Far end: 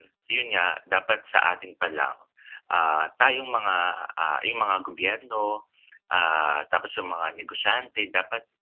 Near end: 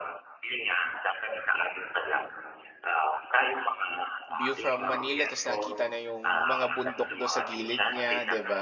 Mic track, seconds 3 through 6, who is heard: both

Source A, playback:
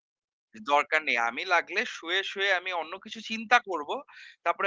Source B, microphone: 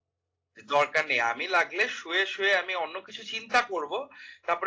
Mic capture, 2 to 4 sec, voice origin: echo only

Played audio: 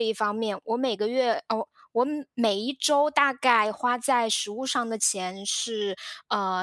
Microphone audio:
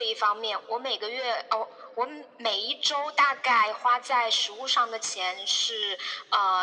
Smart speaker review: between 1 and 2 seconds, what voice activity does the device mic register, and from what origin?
echo only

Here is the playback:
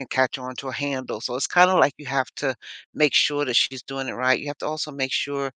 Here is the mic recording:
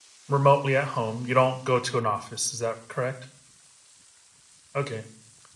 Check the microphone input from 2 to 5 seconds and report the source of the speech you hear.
user only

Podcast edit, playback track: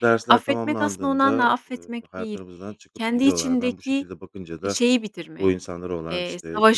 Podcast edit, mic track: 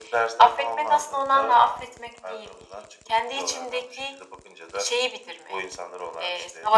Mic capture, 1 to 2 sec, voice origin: echo only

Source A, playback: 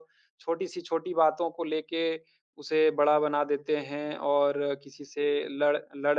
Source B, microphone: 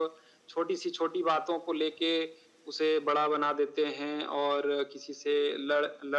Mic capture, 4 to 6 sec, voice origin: echo only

